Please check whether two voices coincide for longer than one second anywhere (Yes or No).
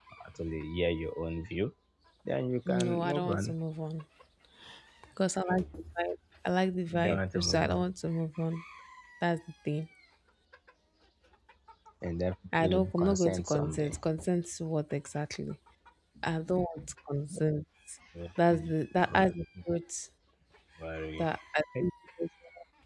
Yes